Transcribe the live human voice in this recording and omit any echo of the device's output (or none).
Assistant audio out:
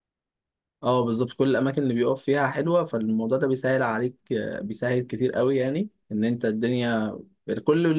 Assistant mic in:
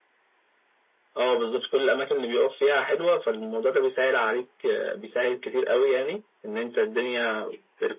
none